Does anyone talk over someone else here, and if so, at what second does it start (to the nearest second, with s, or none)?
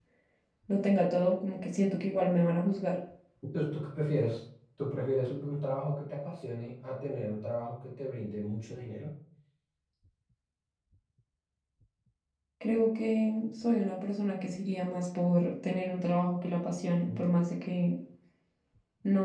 none